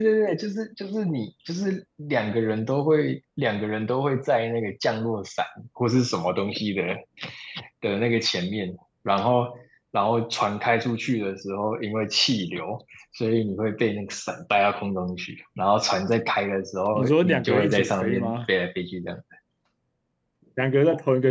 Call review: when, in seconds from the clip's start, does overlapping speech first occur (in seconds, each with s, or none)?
16.9 s